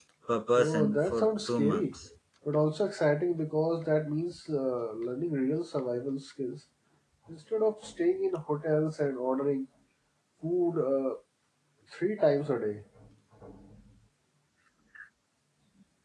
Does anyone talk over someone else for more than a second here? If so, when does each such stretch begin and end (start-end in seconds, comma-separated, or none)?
0.6-1.9